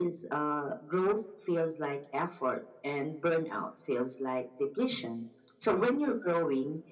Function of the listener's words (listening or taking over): listening